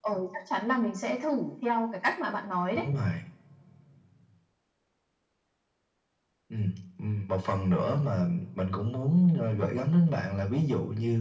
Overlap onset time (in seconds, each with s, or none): none